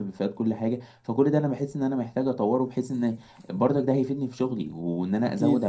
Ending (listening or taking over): listening